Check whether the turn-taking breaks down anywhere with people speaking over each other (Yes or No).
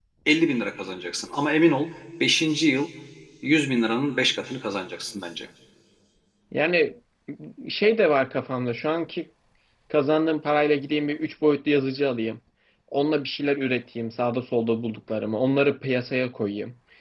No